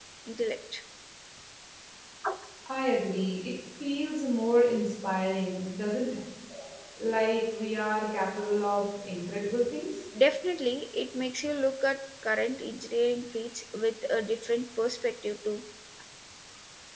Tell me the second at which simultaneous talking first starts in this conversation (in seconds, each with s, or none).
none